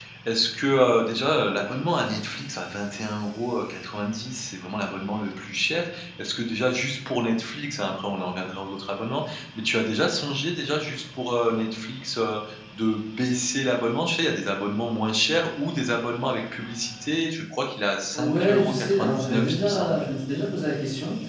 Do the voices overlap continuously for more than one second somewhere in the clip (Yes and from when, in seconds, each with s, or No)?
Yes, from 18.1 s